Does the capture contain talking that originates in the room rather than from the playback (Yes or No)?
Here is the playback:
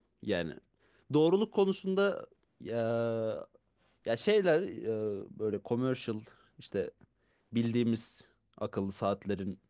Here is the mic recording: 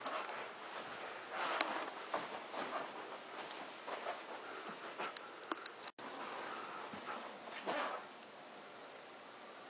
No